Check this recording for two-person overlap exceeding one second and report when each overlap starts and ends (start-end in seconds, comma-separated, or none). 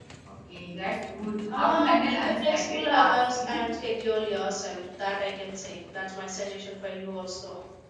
1.5-3.7